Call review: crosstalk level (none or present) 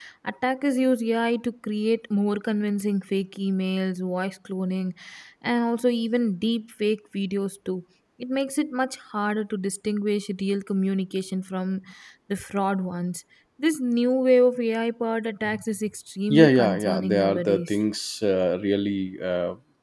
present